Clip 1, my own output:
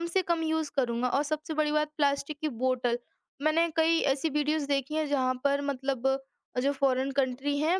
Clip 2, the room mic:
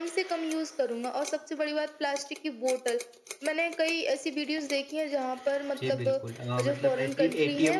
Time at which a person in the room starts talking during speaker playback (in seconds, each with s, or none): 5.8 s